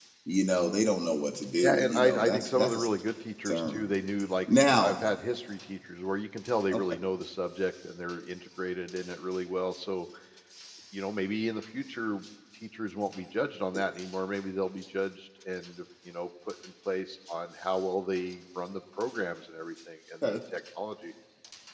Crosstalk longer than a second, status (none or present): present